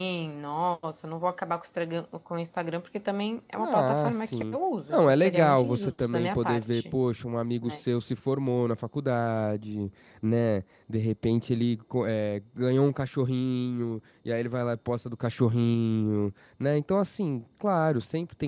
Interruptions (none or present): present